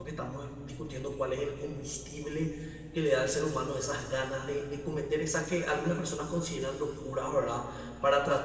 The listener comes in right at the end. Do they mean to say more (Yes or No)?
No